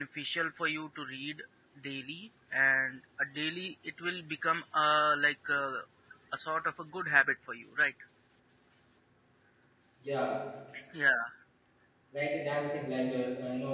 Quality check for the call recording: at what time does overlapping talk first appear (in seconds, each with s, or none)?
none